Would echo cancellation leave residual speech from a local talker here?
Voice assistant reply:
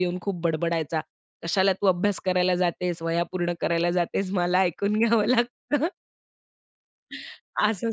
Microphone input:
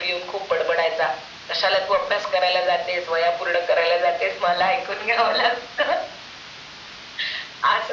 No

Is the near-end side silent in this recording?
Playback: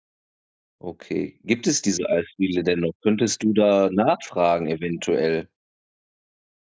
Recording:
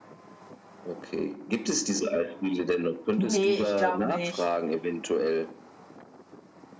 No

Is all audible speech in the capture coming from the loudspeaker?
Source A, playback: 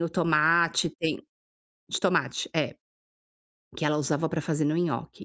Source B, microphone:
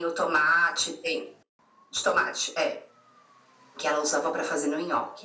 Yes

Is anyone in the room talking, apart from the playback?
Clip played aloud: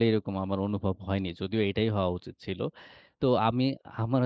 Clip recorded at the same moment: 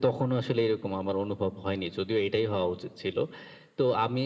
No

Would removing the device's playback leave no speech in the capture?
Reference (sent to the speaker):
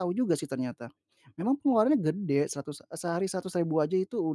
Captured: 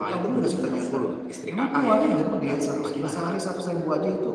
No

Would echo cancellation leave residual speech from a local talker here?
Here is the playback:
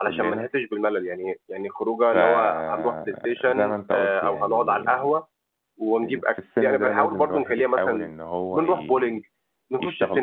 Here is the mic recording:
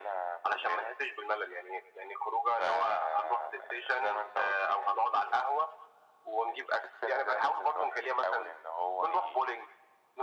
No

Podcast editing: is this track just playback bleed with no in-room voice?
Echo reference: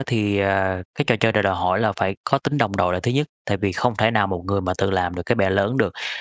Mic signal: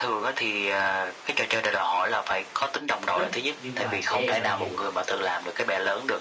No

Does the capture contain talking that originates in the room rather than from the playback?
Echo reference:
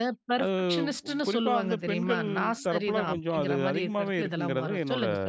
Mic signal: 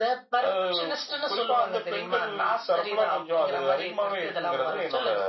No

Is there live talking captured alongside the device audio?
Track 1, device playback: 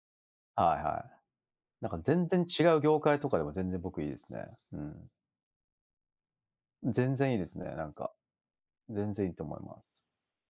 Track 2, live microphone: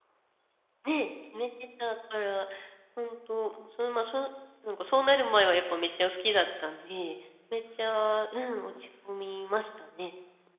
Yes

